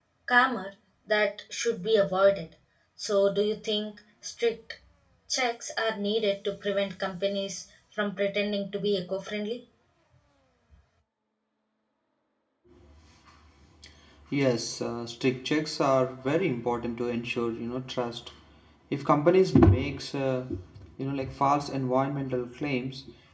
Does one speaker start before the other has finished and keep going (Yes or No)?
No